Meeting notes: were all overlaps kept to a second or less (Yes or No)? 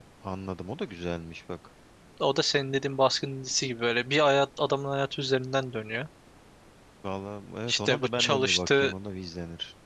No